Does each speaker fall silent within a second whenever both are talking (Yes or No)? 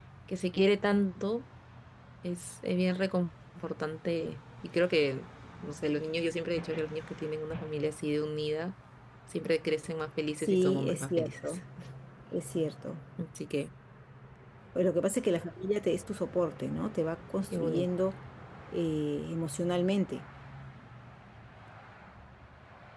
No